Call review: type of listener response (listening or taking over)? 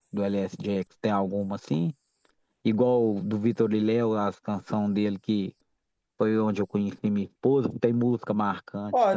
taking over